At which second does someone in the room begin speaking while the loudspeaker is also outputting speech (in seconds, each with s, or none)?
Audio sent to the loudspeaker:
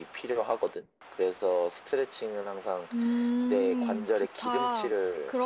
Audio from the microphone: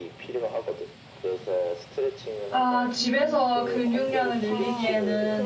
2.5 s